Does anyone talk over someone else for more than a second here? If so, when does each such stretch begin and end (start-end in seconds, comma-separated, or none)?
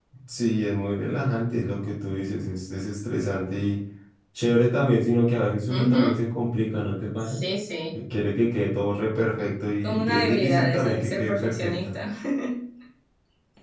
9.8-11.7